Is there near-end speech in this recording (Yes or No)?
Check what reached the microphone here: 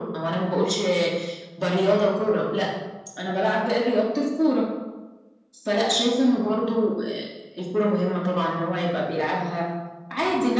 No